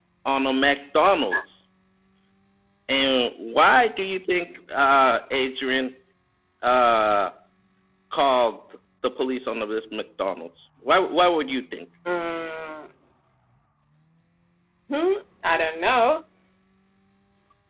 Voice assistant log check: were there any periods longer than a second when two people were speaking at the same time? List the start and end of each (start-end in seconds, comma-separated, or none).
none